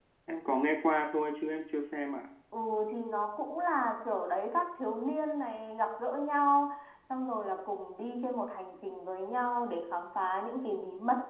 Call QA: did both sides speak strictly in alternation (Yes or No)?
Yes